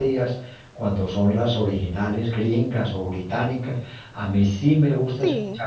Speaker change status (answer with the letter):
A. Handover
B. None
B